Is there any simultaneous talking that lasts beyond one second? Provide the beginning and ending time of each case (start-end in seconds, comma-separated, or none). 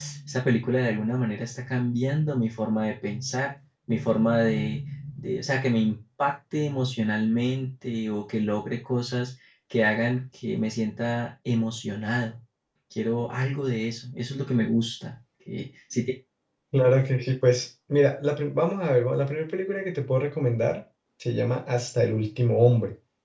none